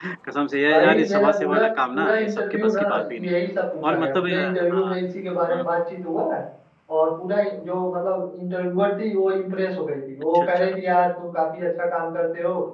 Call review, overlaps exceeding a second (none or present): present